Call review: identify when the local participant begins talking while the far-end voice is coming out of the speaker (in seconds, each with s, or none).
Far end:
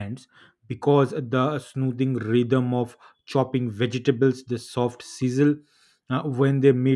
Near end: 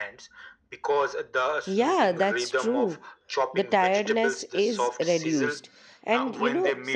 1.6 s